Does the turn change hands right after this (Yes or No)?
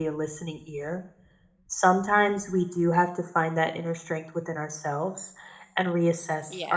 No